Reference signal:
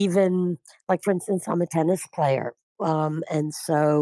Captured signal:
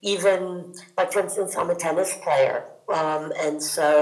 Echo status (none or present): present